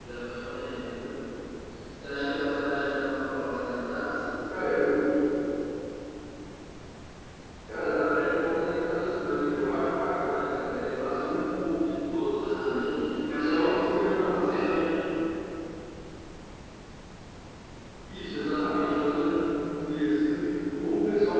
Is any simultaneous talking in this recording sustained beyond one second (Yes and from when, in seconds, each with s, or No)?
Yes, from 12.3 s